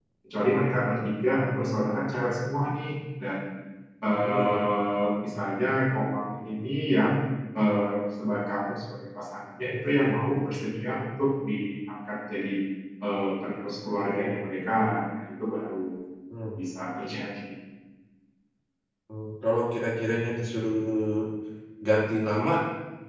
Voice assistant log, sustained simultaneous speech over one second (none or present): none